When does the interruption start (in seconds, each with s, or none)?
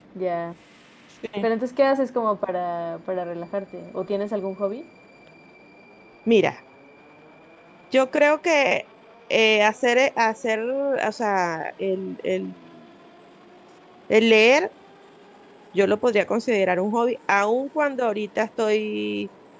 none